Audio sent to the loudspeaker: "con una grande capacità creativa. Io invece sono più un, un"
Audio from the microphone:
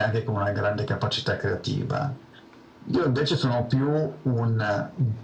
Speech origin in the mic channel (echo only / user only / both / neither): echo only